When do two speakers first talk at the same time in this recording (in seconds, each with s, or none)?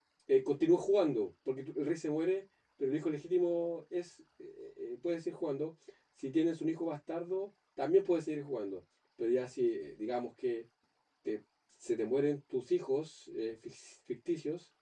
none